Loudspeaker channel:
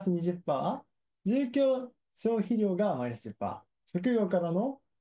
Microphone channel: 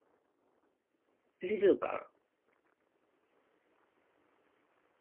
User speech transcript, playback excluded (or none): 水生中毒かな。